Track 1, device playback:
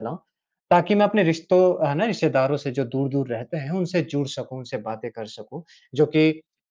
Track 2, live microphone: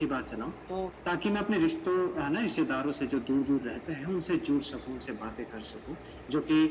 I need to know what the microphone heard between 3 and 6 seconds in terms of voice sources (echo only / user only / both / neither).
echo only